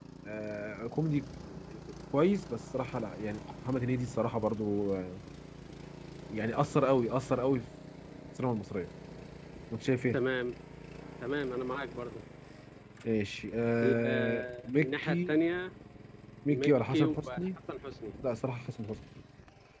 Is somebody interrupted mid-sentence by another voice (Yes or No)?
Yes